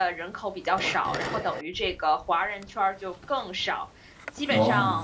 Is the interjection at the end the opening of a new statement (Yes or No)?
No